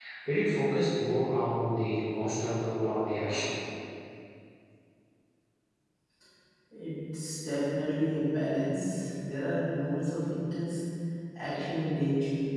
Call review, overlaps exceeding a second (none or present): none